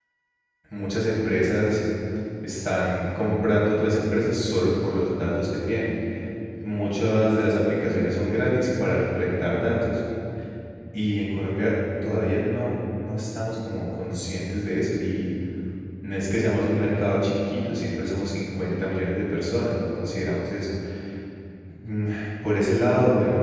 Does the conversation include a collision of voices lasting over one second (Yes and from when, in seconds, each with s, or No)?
No